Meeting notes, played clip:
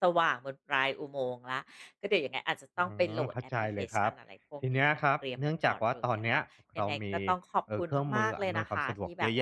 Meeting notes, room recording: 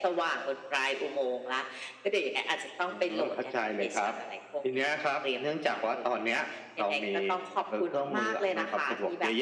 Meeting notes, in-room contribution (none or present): none